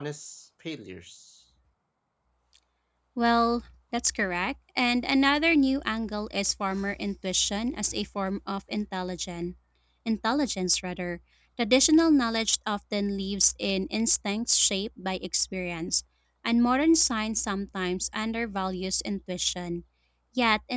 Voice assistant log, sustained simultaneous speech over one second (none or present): none